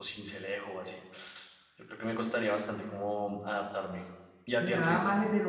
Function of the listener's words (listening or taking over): taking over